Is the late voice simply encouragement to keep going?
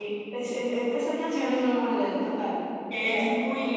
No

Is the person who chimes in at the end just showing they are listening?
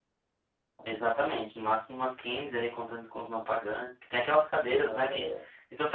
Yes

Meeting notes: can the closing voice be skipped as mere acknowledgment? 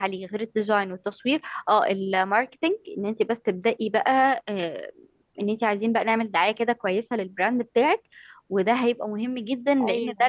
Yes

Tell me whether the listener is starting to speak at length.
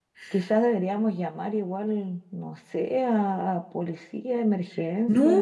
Yes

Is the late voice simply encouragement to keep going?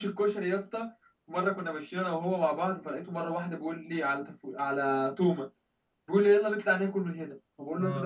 Yes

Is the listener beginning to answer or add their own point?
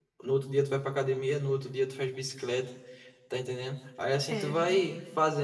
No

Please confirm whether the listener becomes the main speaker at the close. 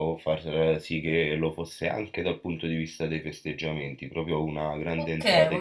Yes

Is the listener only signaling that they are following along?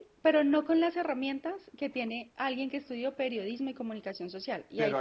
No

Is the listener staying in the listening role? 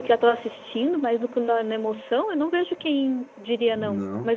No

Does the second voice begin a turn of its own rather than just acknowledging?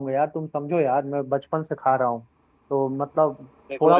No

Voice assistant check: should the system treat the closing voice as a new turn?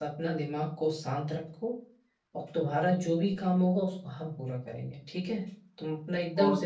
Yes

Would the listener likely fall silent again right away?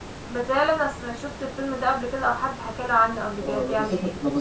No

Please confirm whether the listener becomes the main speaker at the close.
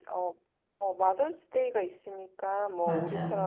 No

